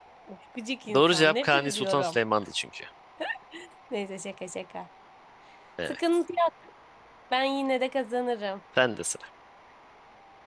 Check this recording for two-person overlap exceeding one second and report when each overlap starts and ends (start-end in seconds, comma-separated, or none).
0.9-2.2